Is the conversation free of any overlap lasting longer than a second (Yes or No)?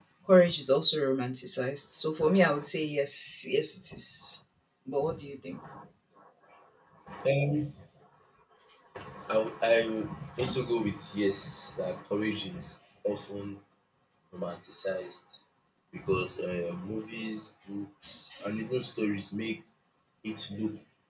Yes